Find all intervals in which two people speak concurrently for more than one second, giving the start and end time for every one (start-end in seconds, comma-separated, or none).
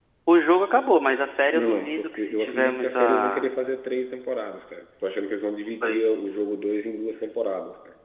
1.5-3.5